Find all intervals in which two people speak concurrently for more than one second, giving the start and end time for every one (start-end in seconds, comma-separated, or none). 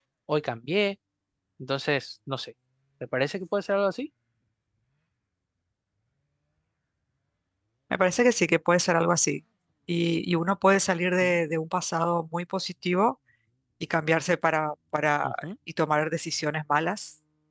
none